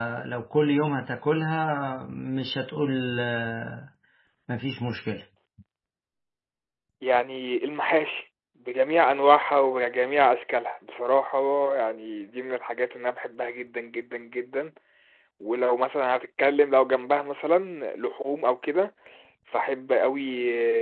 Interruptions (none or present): none